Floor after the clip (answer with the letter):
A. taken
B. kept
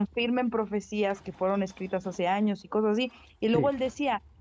B